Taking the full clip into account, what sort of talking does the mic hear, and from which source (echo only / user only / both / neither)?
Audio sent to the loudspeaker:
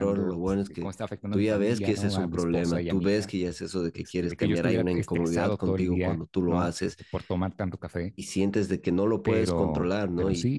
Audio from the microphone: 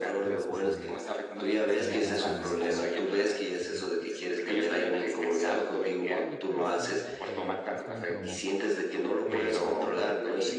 both